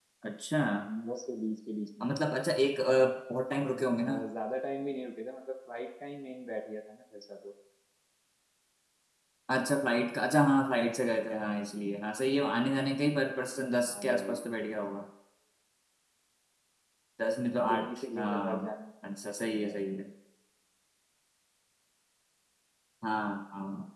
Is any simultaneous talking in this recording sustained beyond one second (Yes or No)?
Yes